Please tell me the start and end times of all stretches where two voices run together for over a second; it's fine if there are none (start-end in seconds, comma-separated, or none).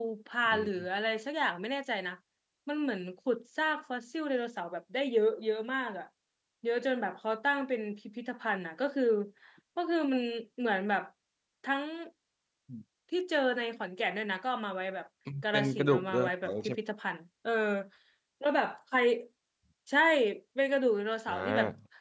15.5-16.8